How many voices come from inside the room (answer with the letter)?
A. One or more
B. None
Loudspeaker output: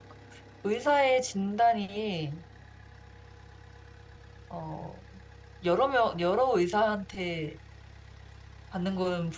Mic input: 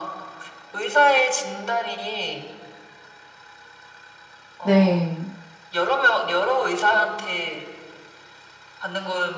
A